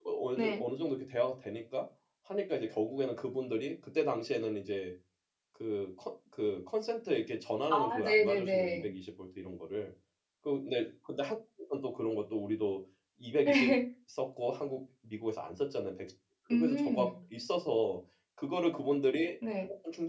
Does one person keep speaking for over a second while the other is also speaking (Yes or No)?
Yes